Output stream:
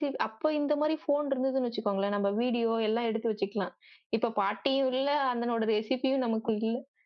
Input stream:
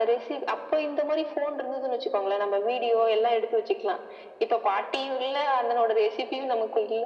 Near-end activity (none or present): none